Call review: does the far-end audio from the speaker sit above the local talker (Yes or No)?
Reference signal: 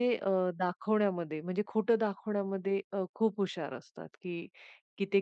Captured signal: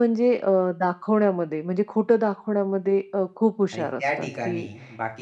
Yes